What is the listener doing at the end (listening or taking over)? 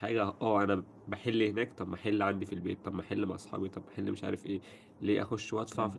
listening